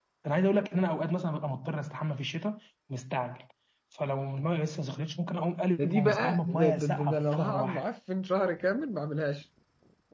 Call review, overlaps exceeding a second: present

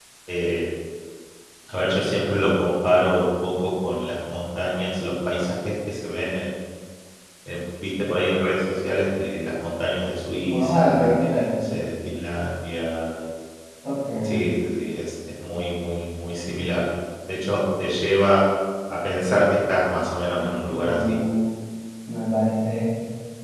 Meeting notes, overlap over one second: present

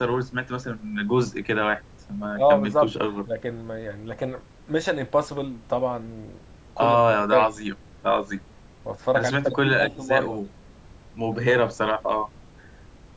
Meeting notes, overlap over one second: present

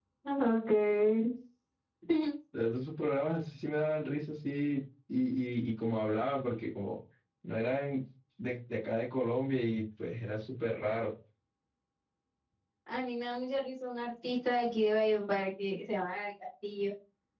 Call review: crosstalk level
none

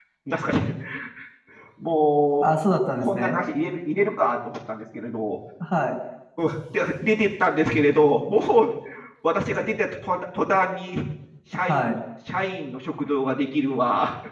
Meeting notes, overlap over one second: none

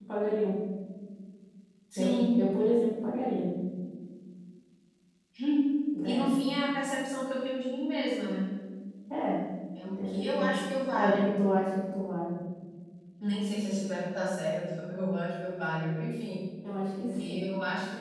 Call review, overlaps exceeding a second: present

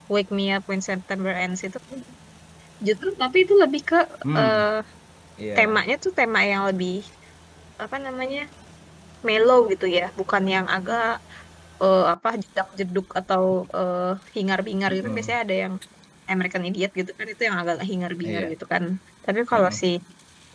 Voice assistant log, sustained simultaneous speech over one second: none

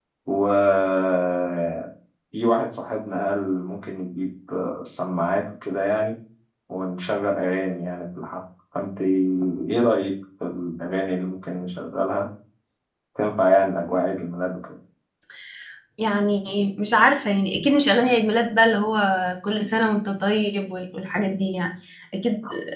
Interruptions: none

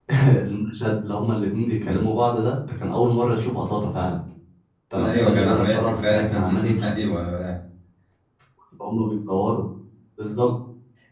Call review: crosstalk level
present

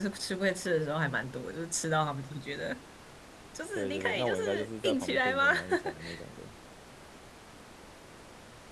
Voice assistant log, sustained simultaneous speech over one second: present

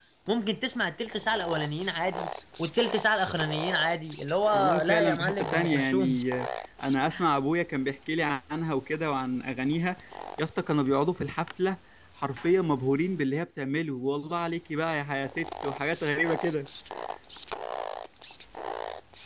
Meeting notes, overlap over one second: present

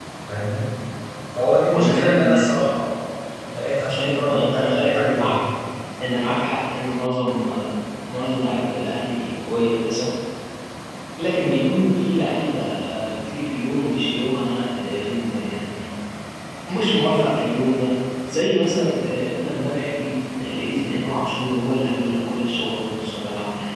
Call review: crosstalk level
present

